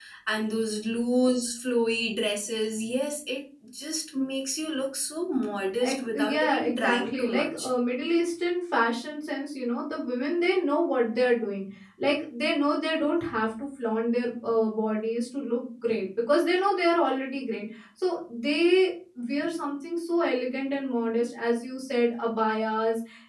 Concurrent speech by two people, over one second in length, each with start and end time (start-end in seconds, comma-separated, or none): 5.9-7.7